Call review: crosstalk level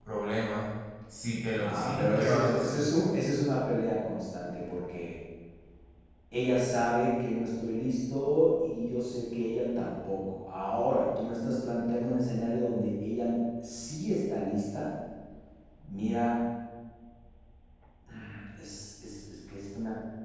present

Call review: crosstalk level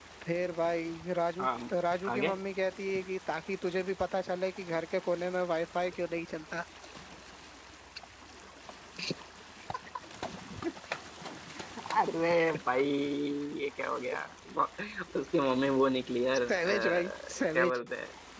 present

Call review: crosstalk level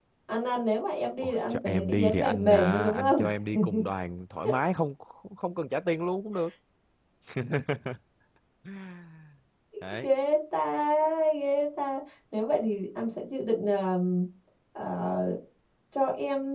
present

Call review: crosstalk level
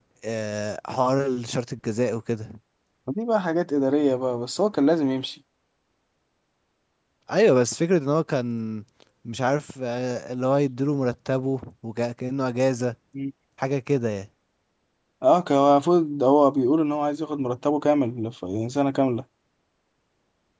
none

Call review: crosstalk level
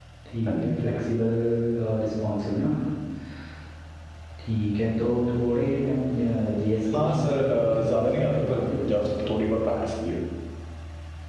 present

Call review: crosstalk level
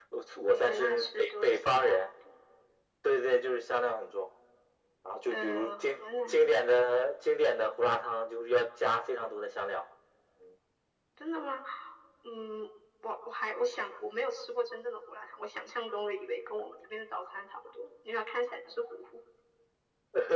present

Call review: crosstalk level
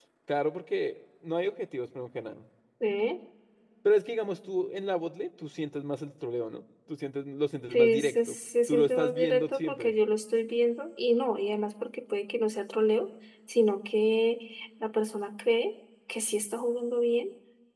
present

